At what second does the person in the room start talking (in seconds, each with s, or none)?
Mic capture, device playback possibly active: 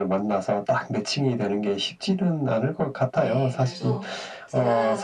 3.1 s